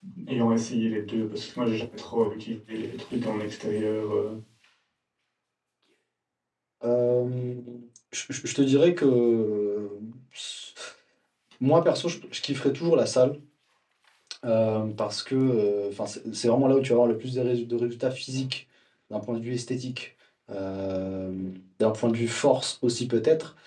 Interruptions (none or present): none